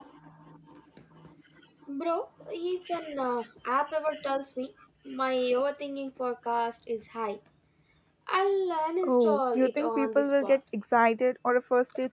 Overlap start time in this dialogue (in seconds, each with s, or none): 9.0 s